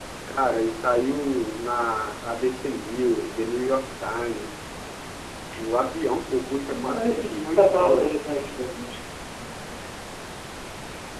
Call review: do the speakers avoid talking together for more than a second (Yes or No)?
No